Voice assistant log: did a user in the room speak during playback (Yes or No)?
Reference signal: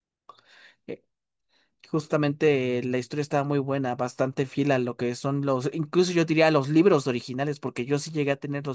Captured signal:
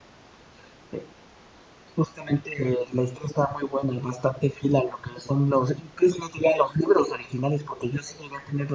No